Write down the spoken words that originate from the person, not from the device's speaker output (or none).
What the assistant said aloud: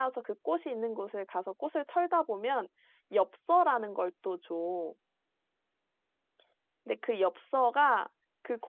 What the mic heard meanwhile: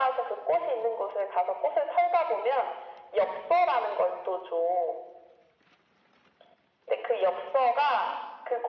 none